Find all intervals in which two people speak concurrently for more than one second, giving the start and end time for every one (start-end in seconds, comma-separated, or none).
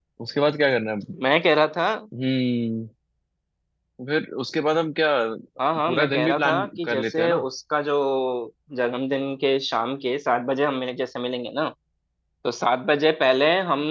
5.9-7.4